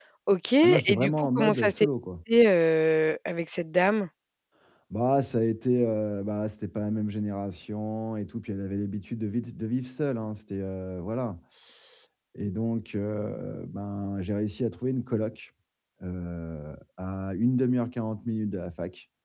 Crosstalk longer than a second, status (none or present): present